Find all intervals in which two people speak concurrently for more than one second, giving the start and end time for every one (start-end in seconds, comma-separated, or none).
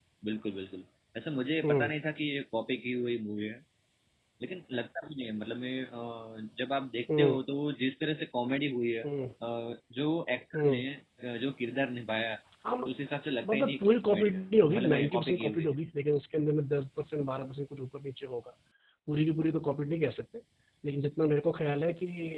13.4-15.7